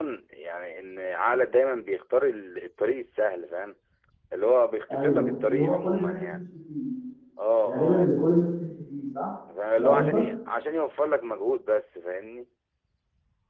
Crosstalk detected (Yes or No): Yes